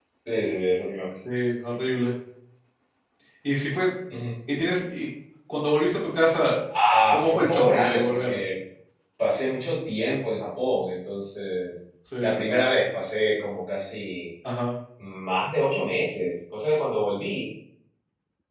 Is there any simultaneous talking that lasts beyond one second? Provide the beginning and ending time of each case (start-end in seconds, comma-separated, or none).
7.1-8.4